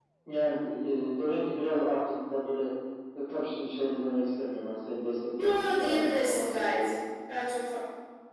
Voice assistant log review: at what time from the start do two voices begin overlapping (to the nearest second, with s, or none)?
5 s